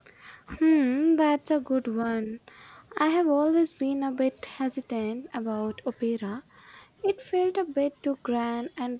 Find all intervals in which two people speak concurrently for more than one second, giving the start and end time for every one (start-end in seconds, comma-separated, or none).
none